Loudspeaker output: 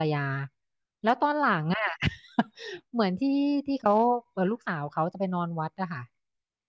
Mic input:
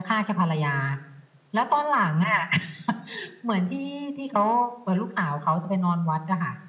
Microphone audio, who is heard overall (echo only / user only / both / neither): echo only